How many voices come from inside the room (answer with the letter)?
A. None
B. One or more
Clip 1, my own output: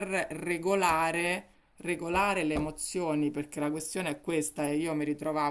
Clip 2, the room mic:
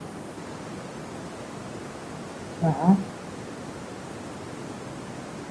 B